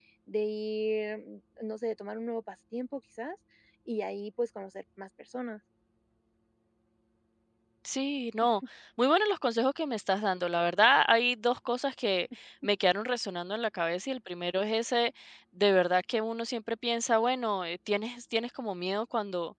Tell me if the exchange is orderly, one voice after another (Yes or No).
Yes